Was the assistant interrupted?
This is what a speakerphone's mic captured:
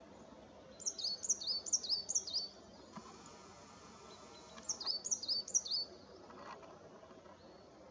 No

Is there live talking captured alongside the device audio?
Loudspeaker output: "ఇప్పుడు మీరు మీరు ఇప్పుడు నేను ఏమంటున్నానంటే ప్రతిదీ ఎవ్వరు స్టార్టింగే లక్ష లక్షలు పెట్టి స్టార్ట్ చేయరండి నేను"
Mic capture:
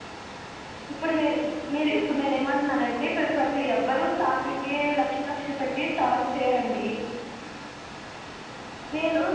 No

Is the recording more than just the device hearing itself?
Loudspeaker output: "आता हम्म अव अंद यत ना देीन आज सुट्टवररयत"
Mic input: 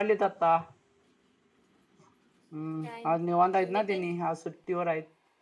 Yes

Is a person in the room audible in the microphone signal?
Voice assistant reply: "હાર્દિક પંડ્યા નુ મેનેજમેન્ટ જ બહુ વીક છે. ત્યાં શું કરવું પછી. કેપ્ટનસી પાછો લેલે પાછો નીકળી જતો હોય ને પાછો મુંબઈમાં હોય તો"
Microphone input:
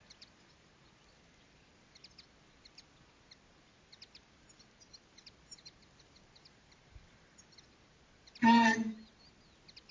Yes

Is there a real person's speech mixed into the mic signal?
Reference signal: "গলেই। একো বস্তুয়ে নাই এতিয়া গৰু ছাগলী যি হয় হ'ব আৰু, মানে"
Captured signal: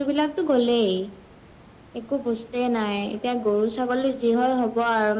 No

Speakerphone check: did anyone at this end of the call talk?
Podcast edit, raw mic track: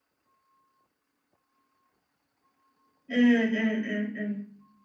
Yes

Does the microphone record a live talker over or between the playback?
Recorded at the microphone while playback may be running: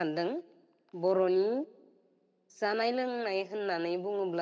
Yes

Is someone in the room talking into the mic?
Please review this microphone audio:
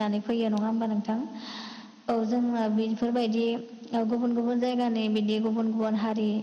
No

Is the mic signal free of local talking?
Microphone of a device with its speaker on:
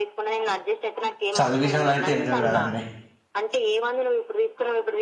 No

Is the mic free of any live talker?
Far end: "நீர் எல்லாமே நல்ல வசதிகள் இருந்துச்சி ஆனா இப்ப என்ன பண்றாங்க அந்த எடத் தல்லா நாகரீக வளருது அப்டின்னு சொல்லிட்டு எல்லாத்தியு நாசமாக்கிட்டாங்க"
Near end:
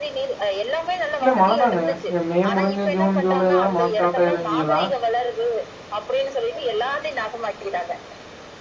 No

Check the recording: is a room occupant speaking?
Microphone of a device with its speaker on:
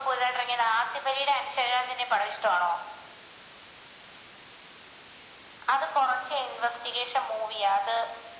No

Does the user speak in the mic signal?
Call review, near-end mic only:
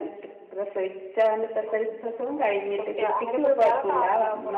Yes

